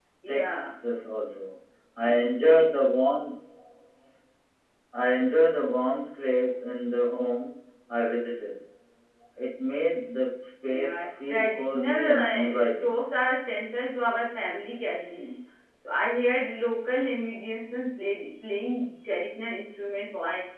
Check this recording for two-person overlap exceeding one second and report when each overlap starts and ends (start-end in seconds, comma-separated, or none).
10.7-12.9